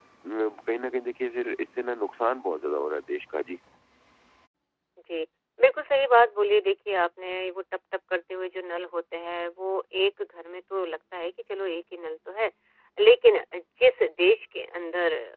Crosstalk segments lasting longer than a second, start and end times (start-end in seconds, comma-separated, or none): none